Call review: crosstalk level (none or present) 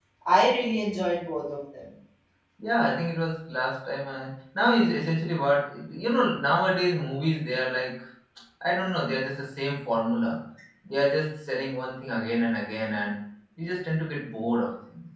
none